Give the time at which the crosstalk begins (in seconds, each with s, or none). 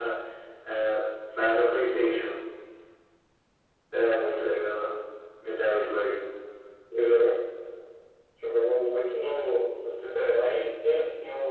none